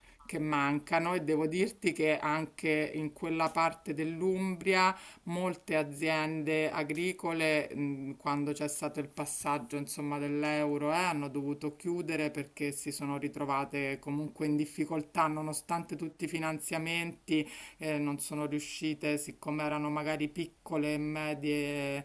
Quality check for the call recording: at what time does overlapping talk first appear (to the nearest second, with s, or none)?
none